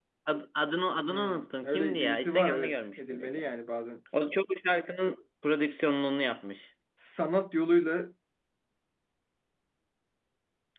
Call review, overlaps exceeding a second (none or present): present